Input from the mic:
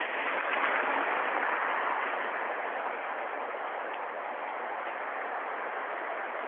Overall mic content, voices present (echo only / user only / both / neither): neither